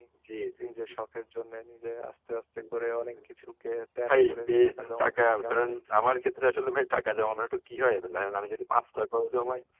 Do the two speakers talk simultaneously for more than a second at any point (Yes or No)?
Yes